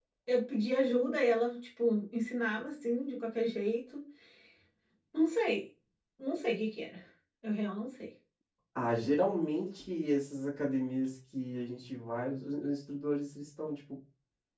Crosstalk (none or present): none